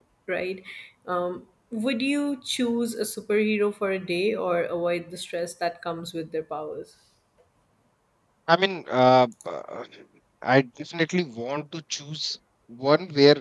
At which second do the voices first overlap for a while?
none

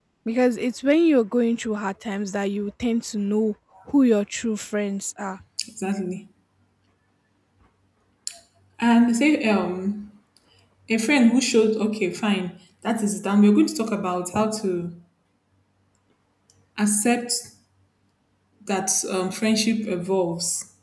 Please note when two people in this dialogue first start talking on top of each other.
none

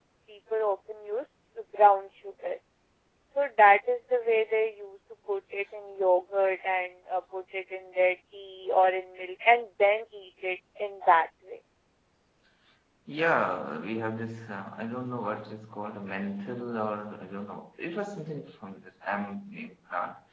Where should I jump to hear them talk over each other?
none

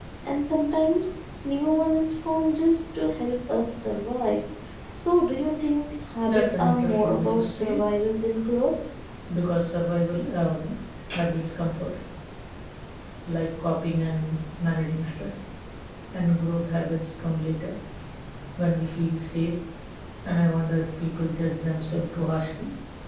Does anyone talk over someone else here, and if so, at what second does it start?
6.3 s

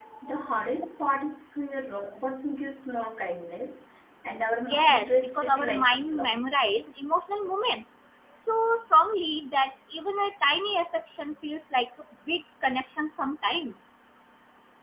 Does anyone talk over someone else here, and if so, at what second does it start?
4.7 s

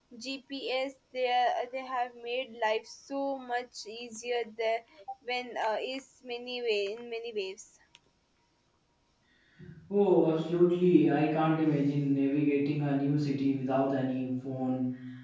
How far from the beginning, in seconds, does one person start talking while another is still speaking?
none

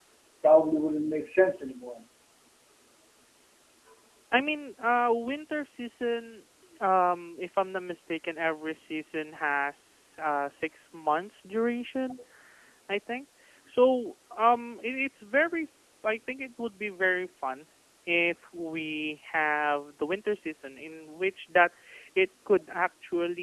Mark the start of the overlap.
none

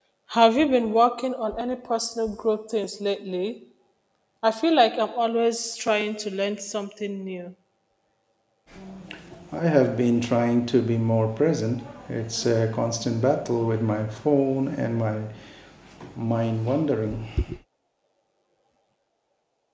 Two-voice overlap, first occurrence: none

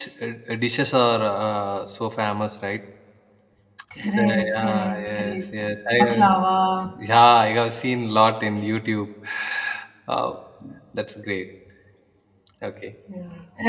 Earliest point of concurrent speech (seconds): 4.2 s

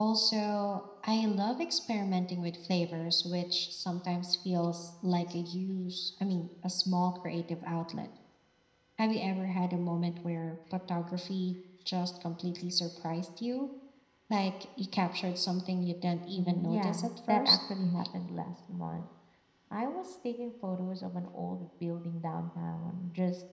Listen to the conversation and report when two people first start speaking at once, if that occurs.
16.3 s

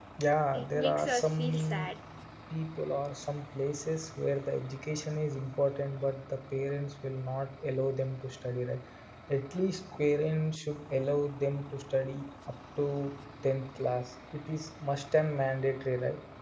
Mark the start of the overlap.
0.5 s

